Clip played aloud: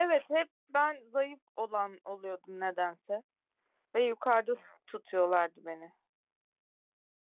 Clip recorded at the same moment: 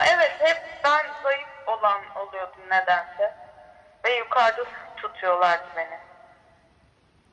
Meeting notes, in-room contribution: none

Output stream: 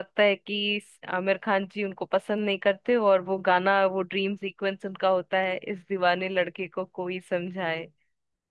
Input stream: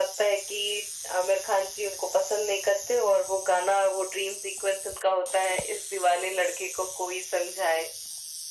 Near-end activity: none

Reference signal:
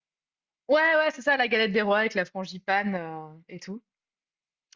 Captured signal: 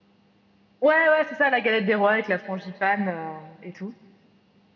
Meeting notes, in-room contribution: none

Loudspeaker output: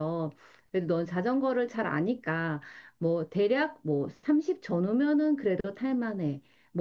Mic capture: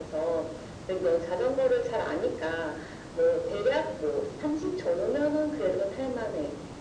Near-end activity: none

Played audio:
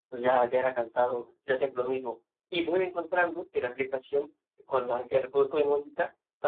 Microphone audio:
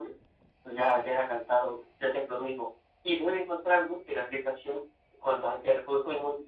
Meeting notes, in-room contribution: none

